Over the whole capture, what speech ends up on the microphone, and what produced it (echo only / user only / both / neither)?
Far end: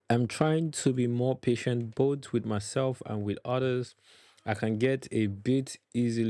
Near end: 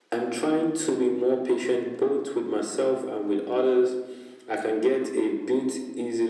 echo only